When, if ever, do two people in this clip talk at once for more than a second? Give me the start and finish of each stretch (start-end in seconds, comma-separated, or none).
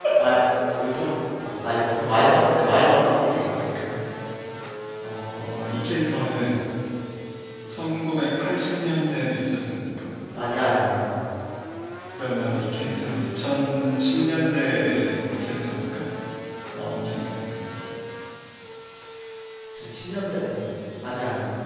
none